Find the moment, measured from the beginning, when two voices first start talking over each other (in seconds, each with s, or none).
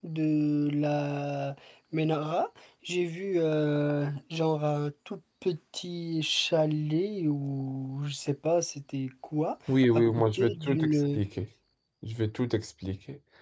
9.9 s